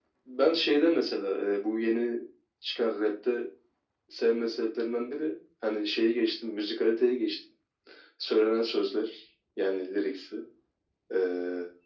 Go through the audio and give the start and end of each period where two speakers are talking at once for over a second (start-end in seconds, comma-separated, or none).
none